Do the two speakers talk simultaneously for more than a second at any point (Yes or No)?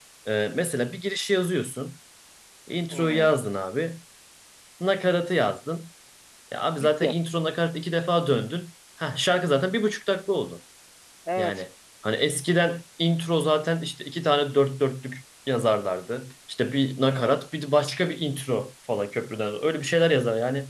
No